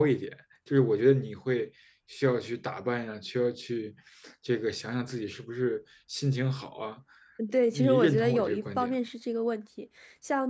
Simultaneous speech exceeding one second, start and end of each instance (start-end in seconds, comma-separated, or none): 7.7-8.9